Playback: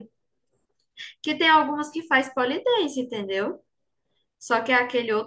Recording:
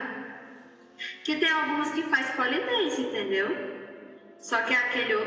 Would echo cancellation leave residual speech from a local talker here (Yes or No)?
No